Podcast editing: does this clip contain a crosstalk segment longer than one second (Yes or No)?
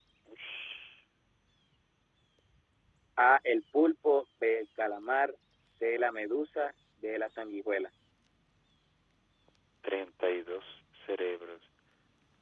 No